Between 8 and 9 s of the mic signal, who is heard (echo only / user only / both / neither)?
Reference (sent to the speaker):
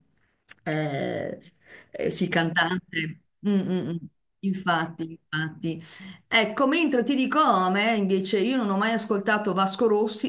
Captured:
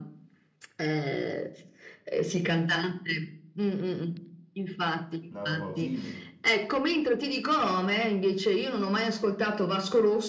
echo only